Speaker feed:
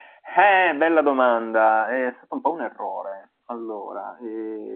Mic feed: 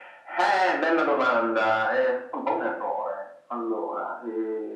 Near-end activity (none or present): none